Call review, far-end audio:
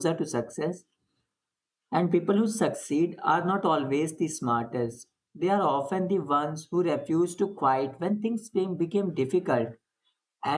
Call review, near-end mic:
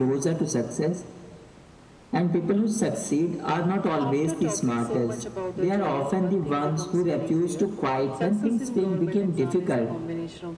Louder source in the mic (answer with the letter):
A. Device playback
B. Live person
A